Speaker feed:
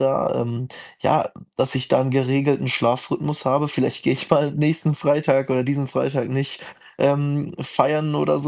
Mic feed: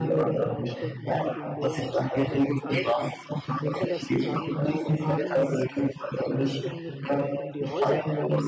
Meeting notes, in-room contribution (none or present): present